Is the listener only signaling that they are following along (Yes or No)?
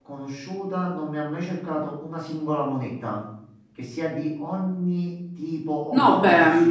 No